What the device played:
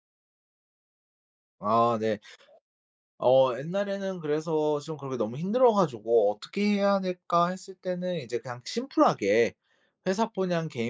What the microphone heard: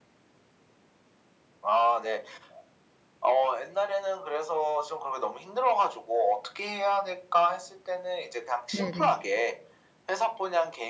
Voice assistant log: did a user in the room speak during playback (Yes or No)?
Yes